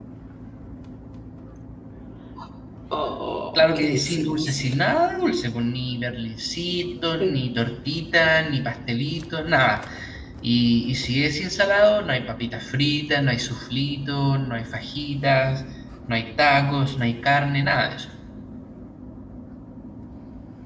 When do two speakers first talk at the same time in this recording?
3.5 s

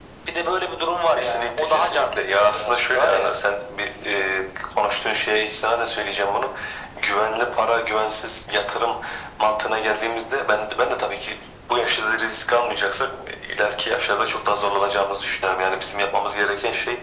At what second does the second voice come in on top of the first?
1.1 s

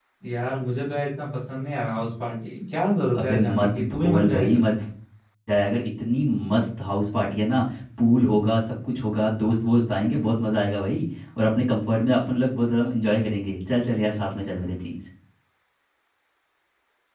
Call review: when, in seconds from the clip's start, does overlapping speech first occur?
3.1 s

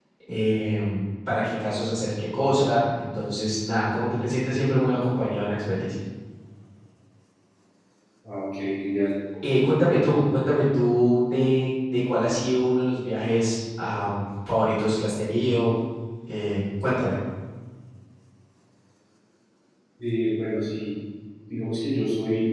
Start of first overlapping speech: none

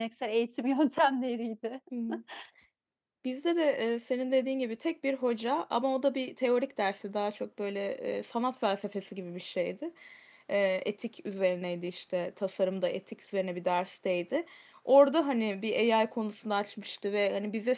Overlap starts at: none

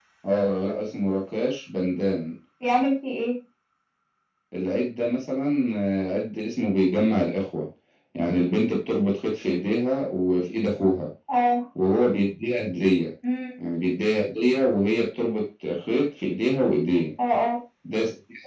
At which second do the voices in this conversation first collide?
none

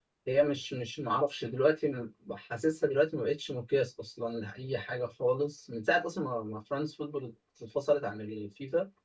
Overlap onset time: none

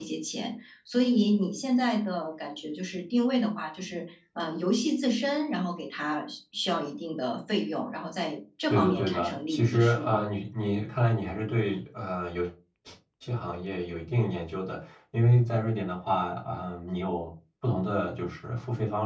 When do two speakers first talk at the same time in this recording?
8.7 s

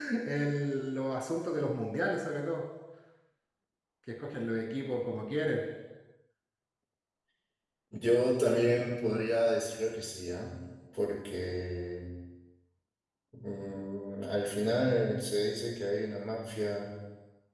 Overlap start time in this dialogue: none

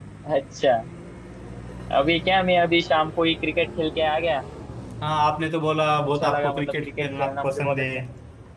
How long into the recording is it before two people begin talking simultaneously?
6.2 s

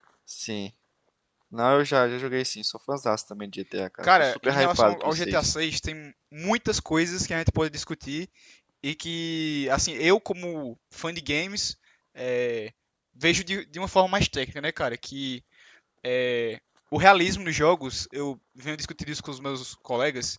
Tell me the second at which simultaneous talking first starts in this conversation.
4.0 s

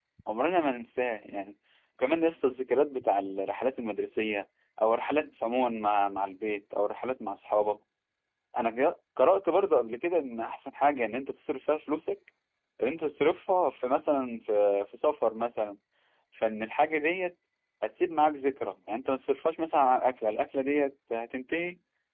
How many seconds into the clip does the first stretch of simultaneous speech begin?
none

